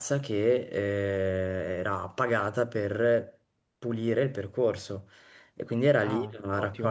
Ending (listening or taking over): listening